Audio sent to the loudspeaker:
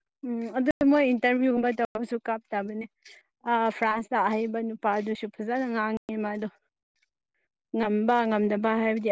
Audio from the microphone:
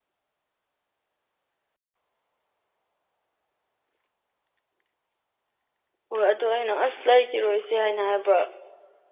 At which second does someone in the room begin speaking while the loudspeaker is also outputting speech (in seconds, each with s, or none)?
6.1 s